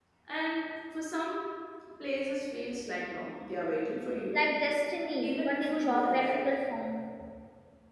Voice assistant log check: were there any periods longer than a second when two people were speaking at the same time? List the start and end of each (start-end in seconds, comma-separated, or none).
5.2-6.5